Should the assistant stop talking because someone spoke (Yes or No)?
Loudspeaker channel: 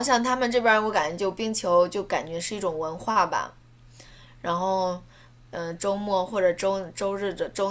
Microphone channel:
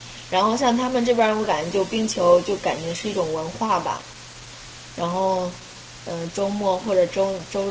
No